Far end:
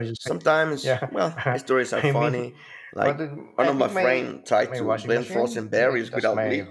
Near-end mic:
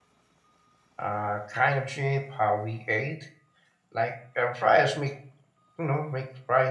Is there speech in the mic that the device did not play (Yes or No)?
Yes